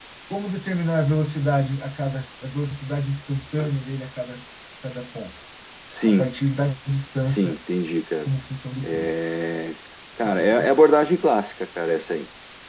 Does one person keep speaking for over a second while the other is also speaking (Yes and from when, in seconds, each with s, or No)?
No